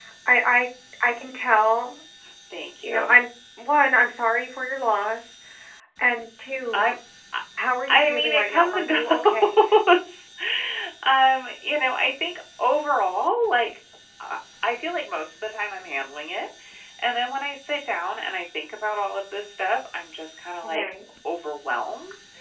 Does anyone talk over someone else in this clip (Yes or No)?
Yes